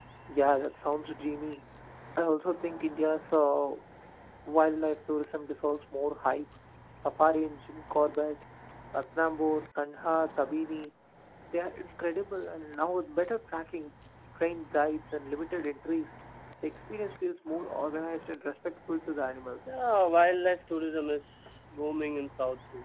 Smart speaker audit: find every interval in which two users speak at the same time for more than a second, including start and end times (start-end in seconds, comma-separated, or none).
none